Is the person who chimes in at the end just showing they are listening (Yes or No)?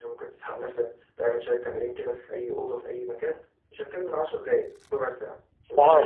No